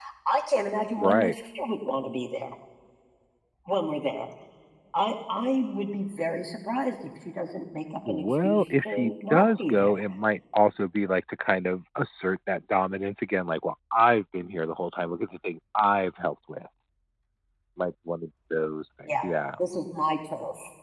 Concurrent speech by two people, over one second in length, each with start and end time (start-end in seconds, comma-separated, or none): 8.1-9.9